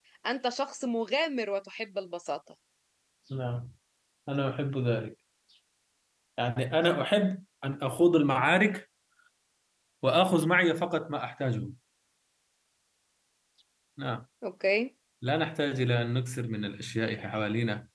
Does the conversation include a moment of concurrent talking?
No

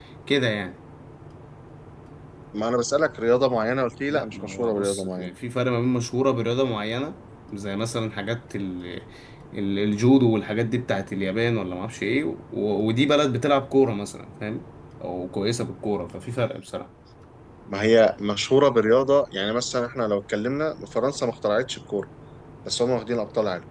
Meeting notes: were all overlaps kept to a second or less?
No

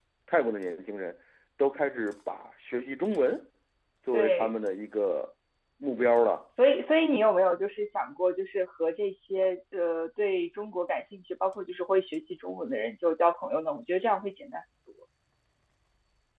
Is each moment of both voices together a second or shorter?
Yes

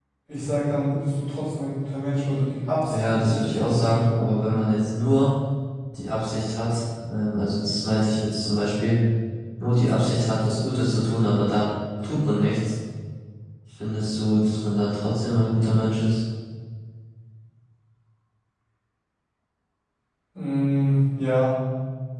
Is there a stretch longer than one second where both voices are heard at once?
Yes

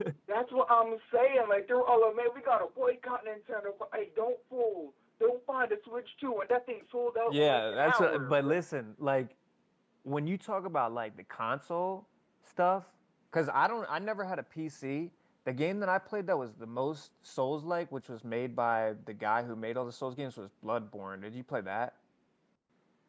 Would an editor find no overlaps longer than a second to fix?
No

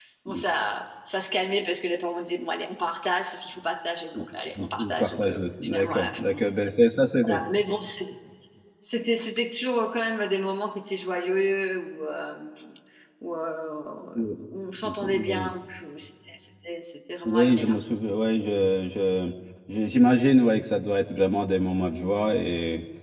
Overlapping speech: Yes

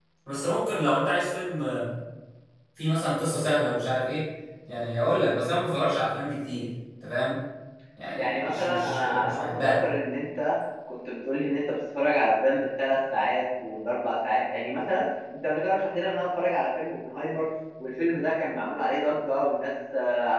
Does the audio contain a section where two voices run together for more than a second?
Yes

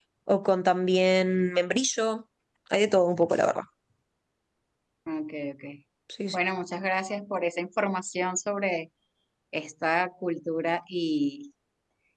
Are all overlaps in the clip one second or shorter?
Yes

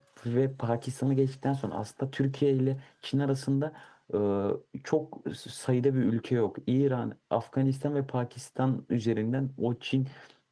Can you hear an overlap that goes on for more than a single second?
No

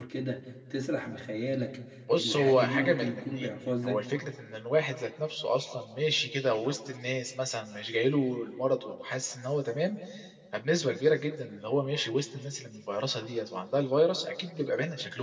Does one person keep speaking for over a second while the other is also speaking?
Yes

